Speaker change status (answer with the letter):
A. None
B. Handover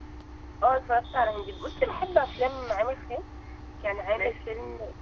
A